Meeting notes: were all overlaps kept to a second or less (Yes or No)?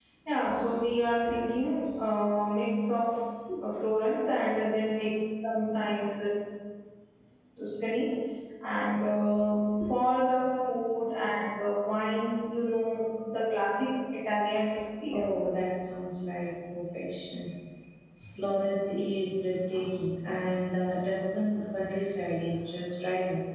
Yes